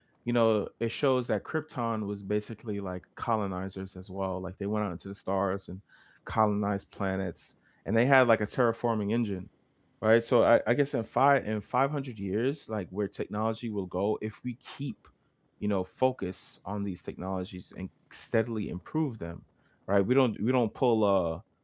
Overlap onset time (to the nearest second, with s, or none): none